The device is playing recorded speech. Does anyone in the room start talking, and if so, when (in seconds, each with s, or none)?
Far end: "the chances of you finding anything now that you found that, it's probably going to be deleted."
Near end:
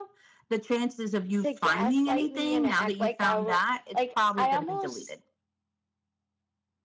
1.3 s